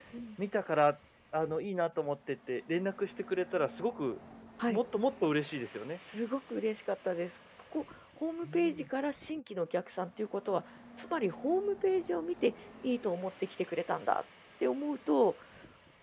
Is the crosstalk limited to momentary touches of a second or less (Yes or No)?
Yes